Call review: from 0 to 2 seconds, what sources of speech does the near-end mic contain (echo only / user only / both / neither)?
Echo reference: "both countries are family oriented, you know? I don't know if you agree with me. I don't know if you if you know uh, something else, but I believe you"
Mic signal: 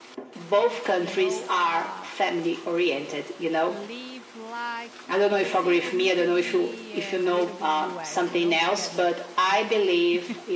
both